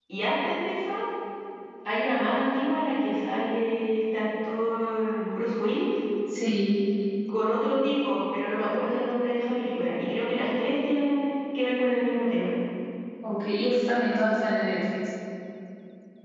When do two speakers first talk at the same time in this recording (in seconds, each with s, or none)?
none